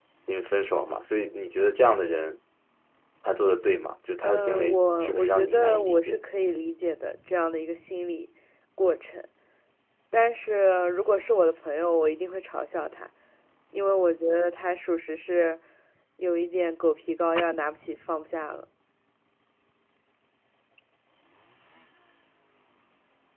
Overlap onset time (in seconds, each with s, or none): 4.2 s